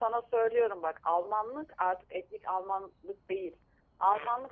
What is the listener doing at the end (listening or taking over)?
listening